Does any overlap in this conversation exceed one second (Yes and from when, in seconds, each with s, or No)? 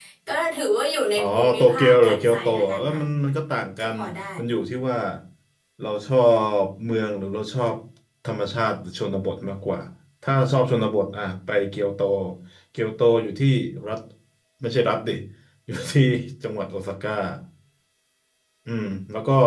Yes, from 1.2 s